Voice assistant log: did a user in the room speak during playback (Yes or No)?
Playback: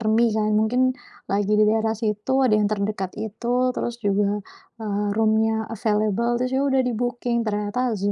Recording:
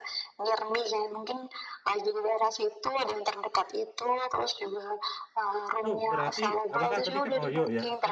Yes